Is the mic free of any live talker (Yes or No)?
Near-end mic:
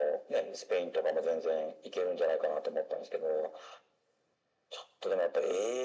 Yes